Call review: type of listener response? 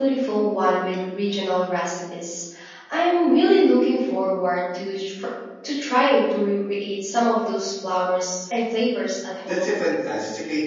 taking over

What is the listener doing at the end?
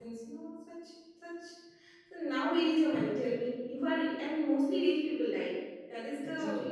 taking over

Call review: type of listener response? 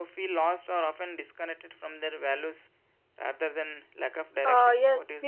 taking over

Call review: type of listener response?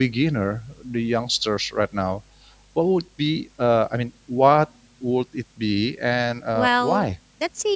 taking over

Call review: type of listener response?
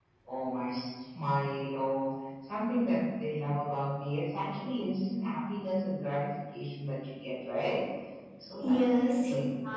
taking over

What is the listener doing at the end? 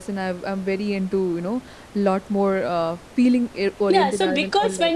taking over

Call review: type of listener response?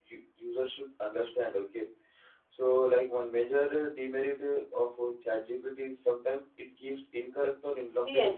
taking over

